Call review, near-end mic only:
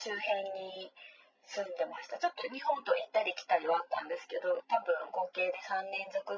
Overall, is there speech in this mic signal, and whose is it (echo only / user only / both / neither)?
echo only